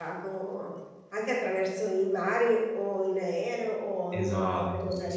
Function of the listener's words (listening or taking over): taking over